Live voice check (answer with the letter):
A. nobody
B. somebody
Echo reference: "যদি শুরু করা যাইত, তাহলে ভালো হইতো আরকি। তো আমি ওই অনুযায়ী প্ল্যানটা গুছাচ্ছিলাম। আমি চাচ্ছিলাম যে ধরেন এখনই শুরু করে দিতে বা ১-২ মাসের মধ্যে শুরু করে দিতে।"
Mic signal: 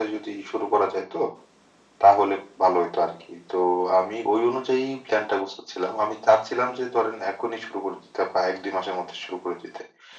A